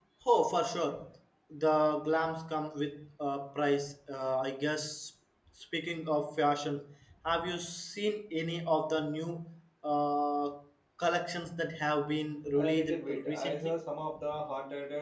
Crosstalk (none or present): present